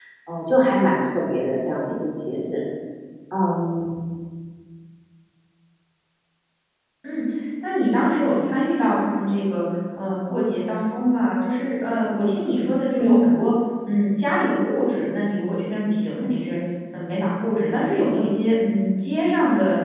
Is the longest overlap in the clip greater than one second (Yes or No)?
No